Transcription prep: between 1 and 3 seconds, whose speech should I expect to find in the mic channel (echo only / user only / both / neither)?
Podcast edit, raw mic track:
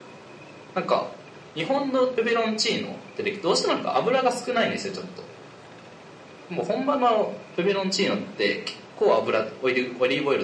echo only